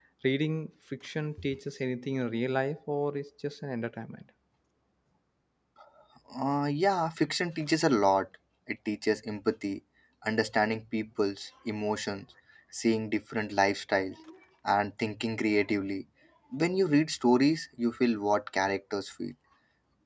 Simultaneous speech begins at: none

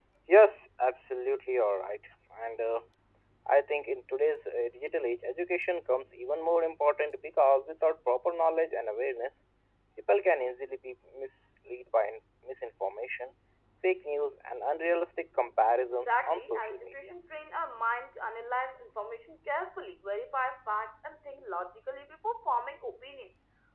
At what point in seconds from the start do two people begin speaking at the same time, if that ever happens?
15.8 s

